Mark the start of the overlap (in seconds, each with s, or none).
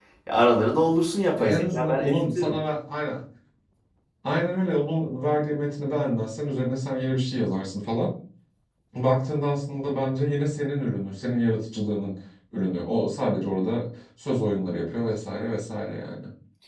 1.4 s